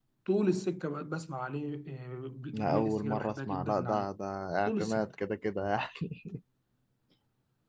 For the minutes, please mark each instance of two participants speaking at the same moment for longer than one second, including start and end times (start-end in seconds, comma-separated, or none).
2.5-4.1